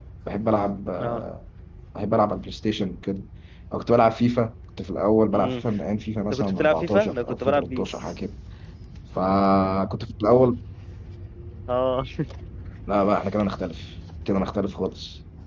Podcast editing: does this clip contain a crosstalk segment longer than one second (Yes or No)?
Yes